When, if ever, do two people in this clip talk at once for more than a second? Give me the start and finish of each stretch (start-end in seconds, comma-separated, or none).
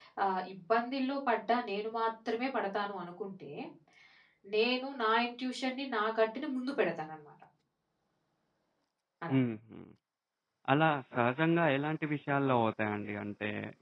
none